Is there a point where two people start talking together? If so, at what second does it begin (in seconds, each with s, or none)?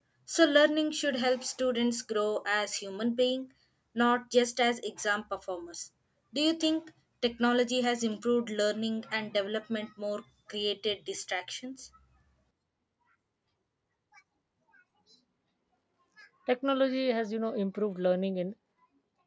none